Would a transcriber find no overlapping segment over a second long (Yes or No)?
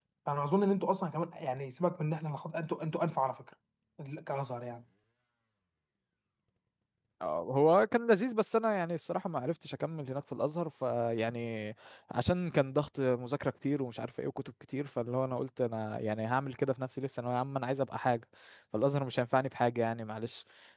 Yes